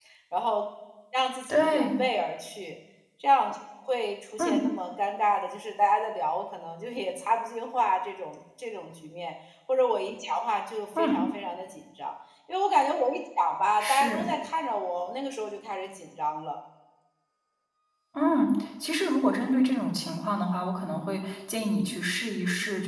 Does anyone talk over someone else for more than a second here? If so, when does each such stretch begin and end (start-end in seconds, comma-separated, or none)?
none